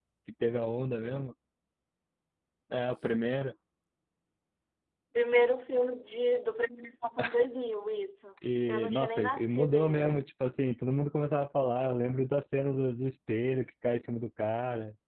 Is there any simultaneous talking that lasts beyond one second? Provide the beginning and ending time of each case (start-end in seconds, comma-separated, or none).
8.7-10.1